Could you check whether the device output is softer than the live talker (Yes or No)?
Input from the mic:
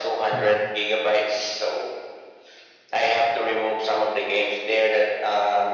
No